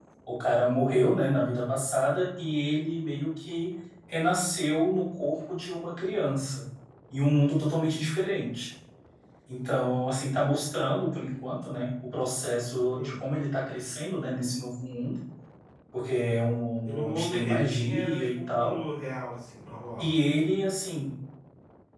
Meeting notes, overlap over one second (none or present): present